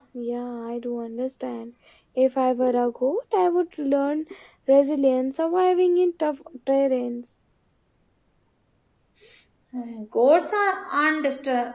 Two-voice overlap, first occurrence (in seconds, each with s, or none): none